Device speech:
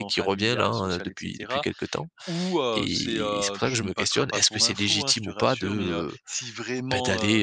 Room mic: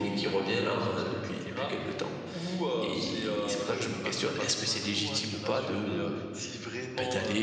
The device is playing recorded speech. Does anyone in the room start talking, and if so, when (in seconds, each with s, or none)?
none